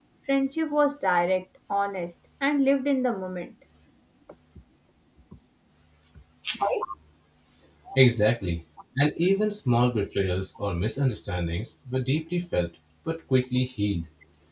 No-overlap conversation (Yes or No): Yes